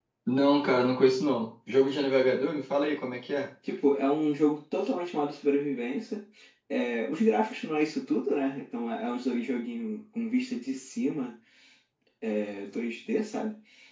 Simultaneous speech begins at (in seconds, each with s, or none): none